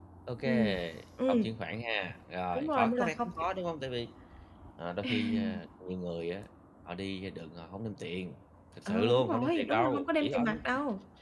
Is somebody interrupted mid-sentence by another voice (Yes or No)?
Yes